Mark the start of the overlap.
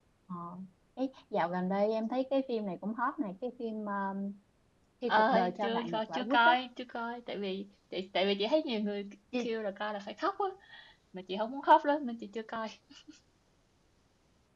5.1 s

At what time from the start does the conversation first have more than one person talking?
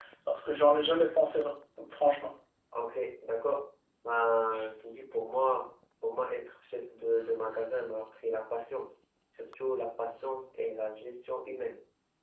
none

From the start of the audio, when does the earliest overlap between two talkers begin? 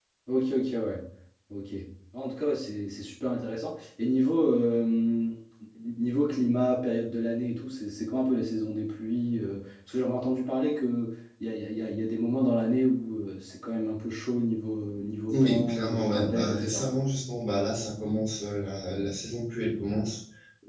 15.3 s

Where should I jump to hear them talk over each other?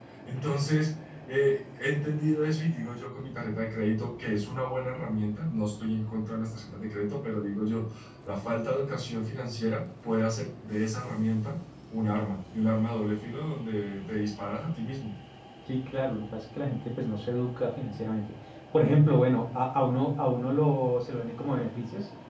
none

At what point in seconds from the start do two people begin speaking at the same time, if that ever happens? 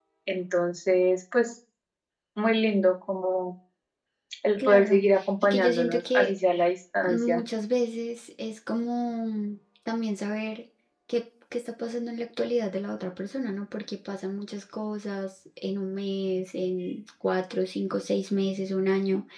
4.6 s

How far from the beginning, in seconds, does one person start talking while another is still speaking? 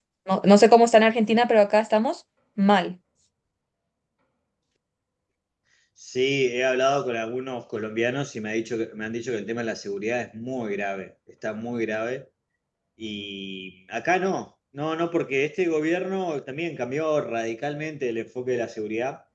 none

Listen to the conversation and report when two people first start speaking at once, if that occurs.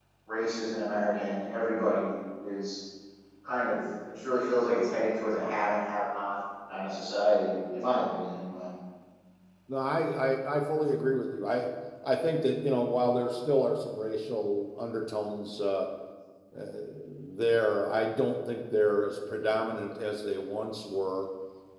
none

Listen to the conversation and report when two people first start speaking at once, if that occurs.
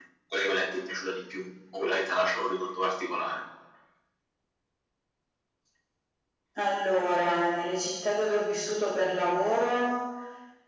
none

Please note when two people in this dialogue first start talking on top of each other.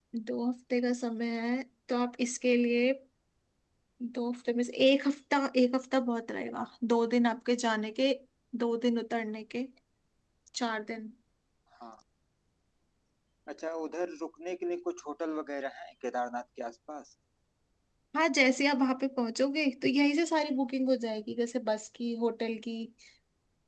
none

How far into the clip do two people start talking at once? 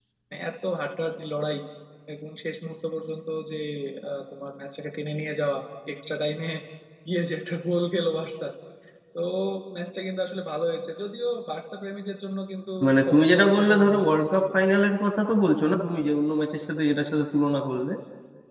12.8 s

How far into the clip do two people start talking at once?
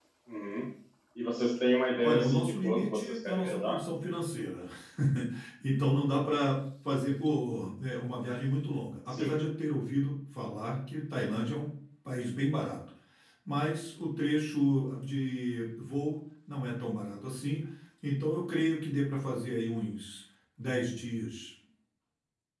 2.0 s

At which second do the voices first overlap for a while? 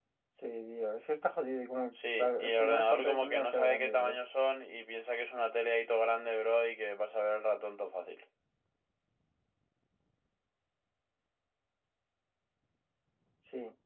1.9 s

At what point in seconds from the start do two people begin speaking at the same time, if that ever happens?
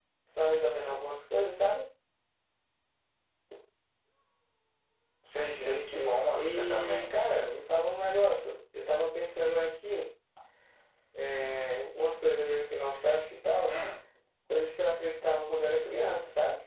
5.5 s

